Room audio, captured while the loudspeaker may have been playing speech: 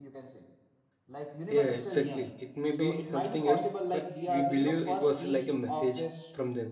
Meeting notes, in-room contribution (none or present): present